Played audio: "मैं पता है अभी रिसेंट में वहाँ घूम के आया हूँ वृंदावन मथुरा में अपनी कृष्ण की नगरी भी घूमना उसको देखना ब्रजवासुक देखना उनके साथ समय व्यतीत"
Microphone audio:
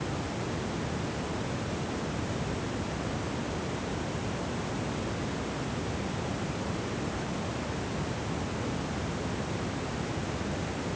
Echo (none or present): none